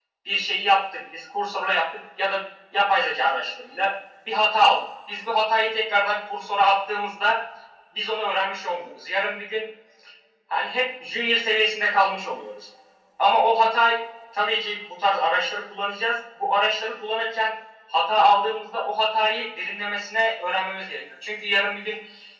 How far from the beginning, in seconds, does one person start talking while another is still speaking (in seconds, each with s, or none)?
none